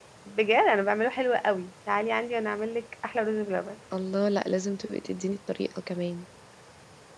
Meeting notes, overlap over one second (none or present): none